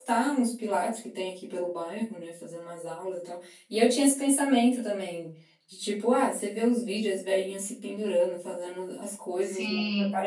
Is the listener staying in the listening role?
Yes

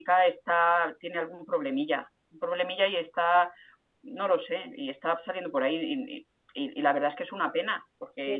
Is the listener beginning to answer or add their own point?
No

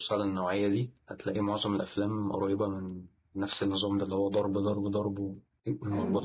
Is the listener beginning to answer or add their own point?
Yes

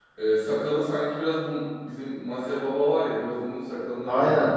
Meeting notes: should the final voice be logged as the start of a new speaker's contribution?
Yes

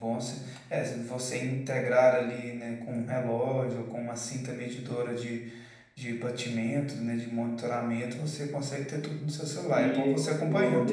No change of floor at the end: No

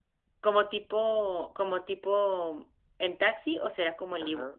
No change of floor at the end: No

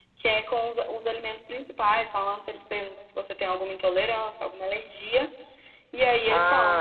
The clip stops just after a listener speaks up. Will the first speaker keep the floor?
Yes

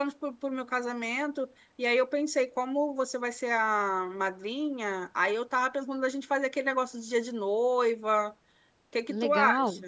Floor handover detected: Yes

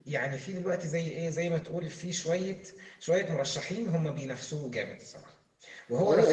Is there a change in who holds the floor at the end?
Yes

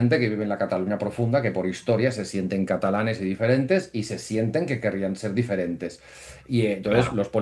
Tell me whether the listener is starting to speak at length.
No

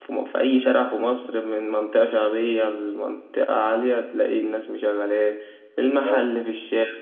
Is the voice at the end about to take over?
No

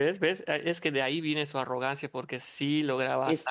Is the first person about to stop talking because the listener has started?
Yes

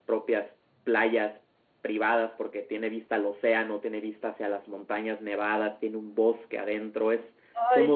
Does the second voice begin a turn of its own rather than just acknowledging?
Yes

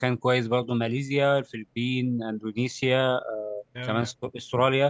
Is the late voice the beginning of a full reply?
No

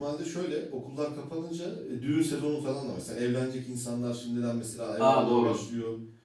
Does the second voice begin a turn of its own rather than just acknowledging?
No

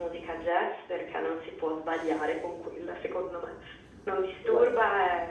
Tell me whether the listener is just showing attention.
Yes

